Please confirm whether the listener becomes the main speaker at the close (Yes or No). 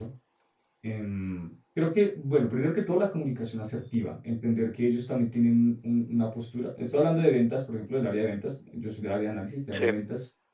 No